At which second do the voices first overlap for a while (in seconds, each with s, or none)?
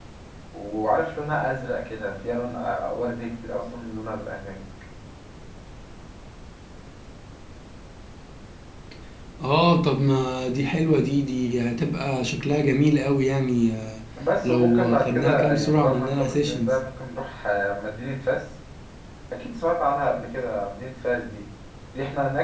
14.4 s